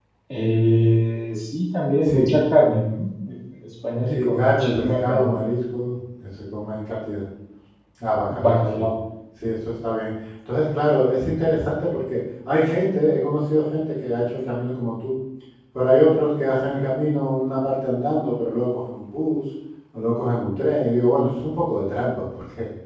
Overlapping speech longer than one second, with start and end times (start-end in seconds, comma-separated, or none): 4.1-5.4